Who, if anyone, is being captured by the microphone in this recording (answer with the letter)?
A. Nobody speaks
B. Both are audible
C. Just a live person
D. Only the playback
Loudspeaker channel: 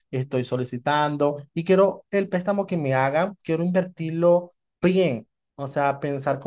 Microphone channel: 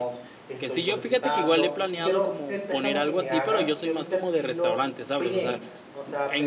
B